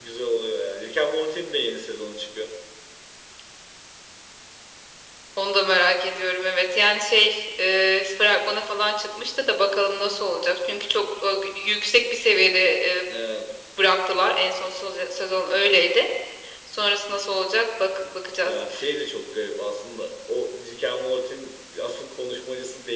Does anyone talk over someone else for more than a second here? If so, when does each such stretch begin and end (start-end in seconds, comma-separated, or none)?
none